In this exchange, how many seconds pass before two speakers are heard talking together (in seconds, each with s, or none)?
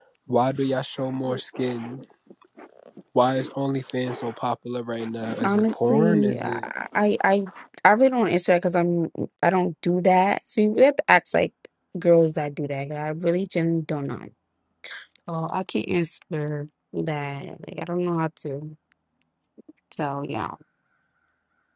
5.4 s